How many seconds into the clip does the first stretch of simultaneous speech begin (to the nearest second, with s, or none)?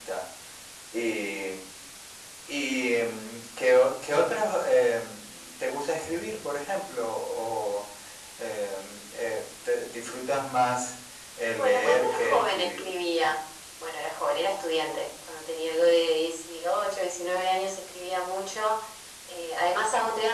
12 s